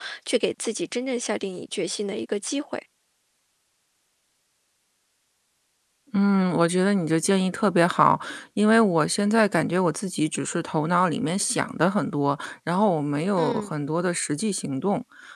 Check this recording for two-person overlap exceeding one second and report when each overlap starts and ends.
none

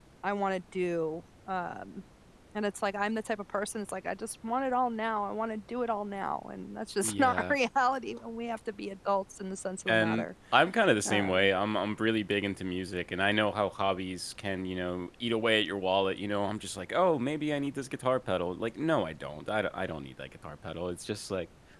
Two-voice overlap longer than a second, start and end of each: none

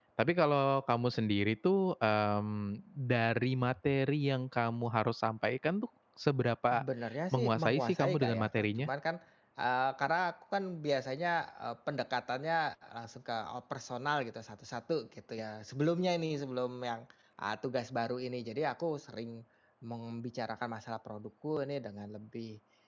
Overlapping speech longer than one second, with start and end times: 7.3-8.9

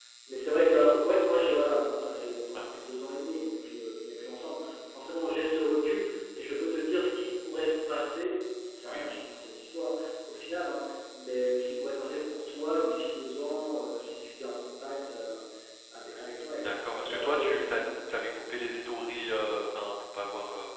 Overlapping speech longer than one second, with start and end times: 16.5-17.9

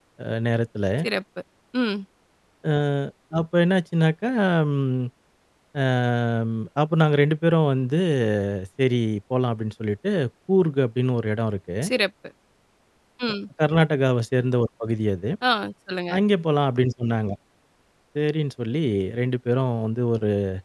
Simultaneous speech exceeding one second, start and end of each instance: none

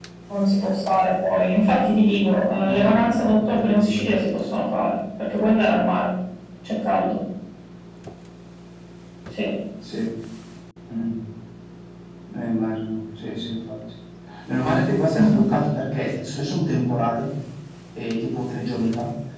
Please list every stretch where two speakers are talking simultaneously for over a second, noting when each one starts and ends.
2.6-4.0

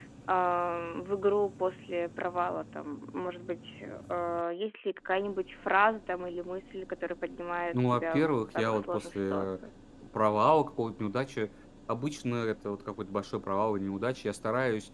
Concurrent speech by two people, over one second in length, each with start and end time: 7.7-9.6

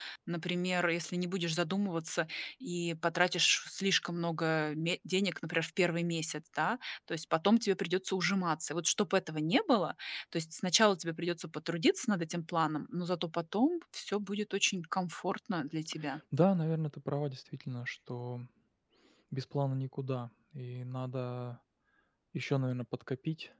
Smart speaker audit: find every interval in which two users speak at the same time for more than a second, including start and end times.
none

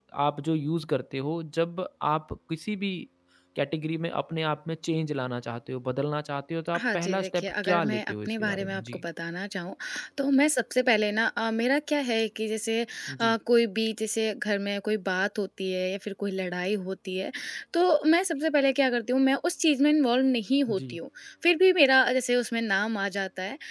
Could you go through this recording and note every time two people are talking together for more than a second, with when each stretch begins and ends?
6.8-9.0

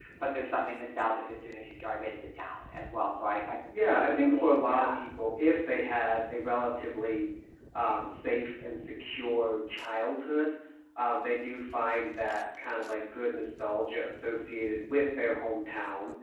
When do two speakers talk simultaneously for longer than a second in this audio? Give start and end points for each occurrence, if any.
3.7-4.9

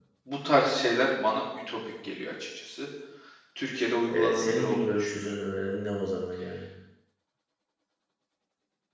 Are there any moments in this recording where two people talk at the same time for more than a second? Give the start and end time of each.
4.1-5.4

